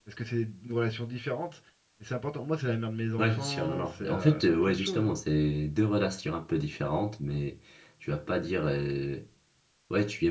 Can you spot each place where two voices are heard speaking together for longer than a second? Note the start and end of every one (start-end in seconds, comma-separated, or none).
3.2-5.2